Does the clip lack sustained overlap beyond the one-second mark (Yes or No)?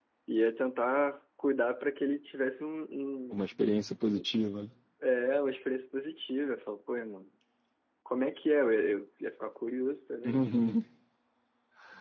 Yes